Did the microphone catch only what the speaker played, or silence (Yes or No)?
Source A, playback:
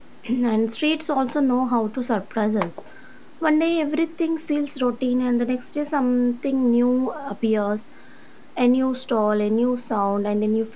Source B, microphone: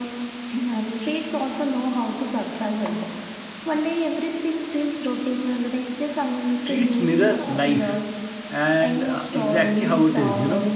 No